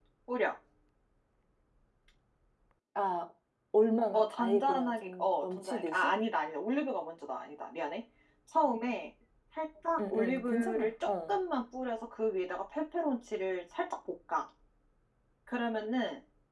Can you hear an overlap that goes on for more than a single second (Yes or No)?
Yes